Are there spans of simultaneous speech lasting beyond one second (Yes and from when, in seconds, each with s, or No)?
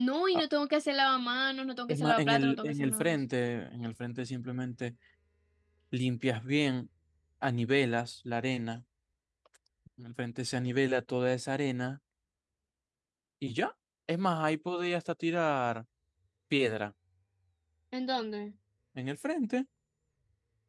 Yes, from 1.9 s